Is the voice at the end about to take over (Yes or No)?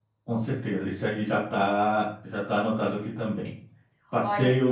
No